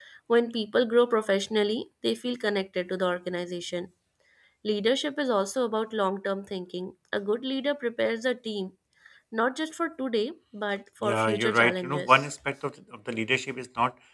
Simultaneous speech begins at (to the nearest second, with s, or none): 11 s